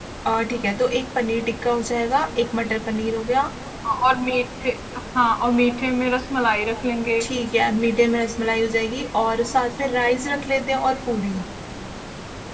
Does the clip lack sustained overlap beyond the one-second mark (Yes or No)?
Yes